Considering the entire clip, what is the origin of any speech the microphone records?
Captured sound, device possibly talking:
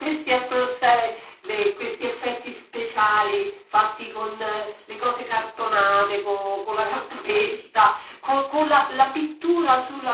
echo only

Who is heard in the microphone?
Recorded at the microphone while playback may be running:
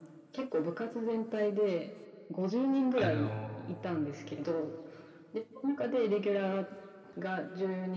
both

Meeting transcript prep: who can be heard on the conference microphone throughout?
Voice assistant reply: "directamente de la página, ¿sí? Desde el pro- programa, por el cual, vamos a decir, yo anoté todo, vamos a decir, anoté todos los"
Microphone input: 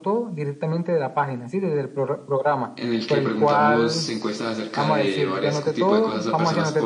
both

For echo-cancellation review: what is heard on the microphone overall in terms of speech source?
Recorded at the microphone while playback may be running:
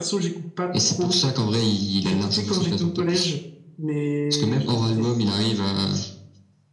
echo only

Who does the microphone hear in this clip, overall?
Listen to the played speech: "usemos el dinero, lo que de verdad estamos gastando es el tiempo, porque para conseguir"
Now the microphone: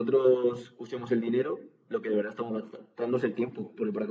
echo only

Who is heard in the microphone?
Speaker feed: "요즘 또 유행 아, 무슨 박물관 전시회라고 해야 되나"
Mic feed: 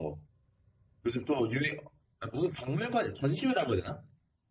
echo only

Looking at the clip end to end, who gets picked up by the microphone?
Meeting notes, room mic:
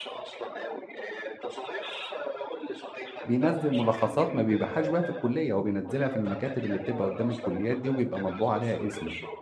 both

